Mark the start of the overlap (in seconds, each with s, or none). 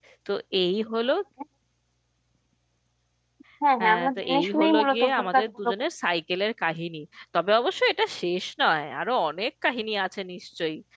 3.8 s